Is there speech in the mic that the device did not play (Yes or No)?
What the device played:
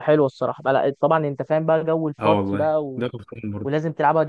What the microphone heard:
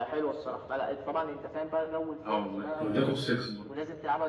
Yes